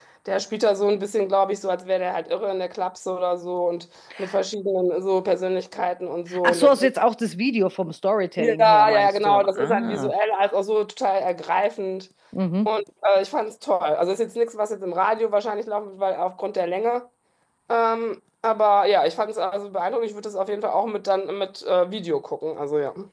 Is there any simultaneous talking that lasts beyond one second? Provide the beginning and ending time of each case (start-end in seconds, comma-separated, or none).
8.4-10.1